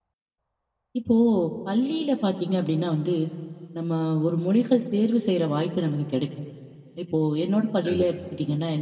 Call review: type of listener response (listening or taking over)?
listening